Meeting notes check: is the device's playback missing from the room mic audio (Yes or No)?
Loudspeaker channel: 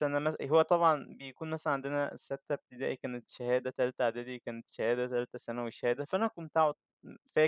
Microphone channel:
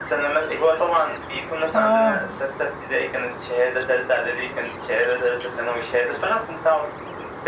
No